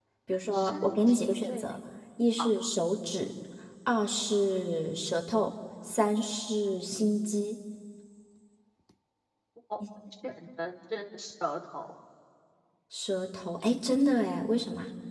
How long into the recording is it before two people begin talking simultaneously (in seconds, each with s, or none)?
0.5 s